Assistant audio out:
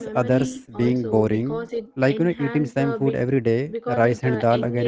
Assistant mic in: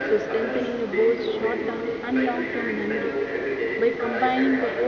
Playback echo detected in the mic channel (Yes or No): Yes